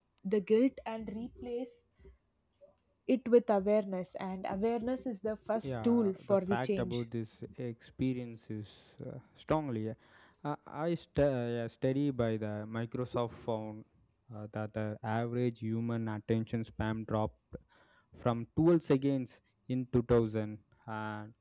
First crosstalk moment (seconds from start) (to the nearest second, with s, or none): 6 s